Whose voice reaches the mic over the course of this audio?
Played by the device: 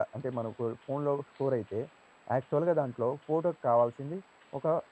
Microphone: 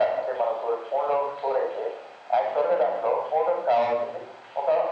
echo only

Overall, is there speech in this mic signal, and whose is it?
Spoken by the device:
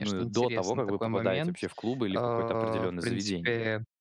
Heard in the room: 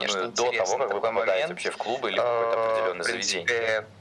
echo only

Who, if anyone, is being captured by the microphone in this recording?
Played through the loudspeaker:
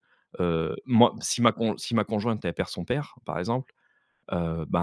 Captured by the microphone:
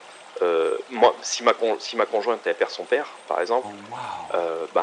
both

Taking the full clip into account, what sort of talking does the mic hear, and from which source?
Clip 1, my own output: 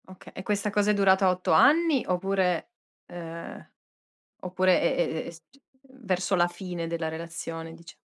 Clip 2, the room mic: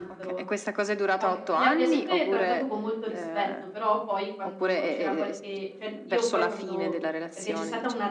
both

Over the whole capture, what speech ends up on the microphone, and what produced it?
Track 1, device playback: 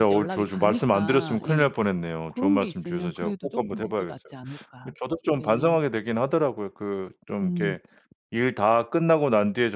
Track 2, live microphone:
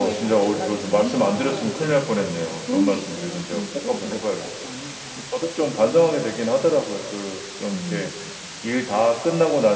echo only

